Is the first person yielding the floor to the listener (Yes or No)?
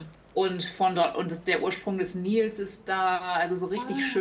No